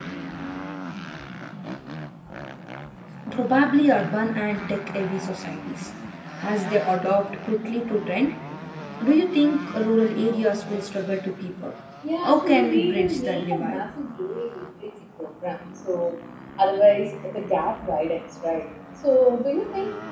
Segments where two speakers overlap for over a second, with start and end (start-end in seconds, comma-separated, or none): 12.2-13.8